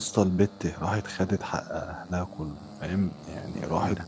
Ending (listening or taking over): listening